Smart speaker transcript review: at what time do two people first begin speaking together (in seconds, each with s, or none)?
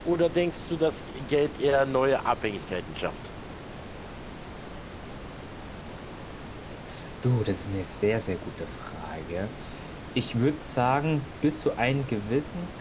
none